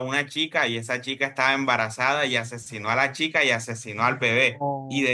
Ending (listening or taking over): listening